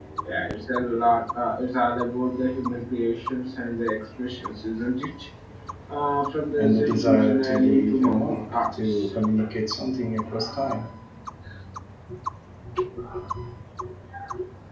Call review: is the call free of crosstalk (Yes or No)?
No